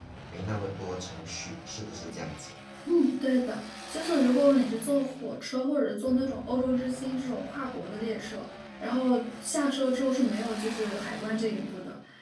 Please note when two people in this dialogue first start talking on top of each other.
none

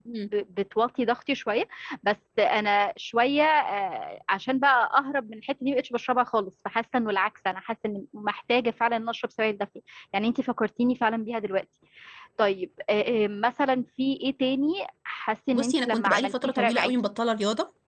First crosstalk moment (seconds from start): 15.5 s

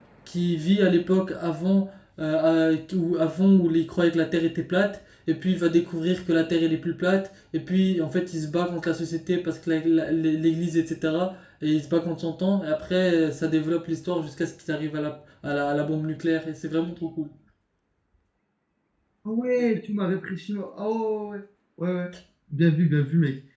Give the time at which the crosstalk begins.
none

